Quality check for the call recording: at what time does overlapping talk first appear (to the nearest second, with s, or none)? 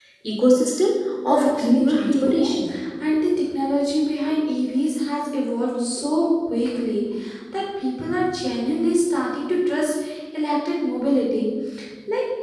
1 s